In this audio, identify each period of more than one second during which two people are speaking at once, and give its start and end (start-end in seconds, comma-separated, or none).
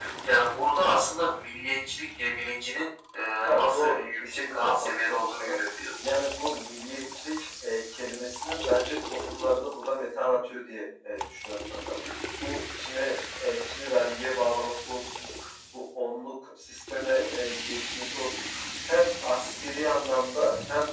3.4-5.5